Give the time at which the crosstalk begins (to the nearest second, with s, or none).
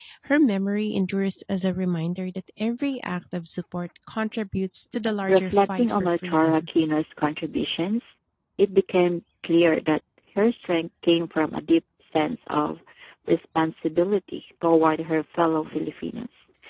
5 s